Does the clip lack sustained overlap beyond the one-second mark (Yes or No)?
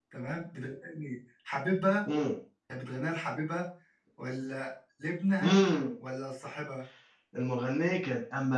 Yes